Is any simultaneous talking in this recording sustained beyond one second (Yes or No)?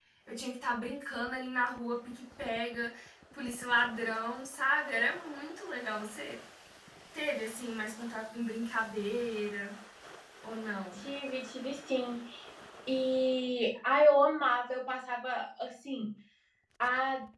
No